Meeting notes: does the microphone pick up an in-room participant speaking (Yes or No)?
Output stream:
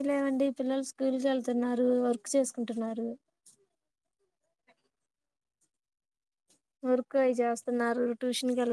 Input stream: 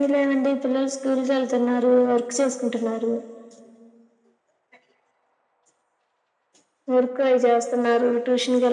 No